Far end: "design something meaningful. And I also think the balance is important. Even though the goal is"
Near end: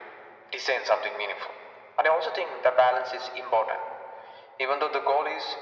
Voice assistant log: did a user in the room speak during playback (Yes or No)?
No